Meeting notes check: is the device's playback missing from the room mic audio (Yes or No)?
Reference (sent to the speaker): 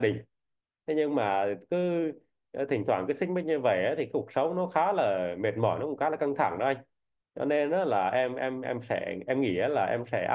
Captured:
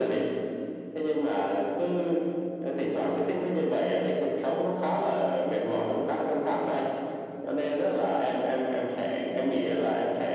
No